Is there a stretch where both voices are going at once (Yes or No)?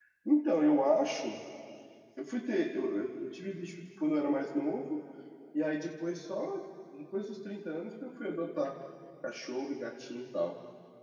No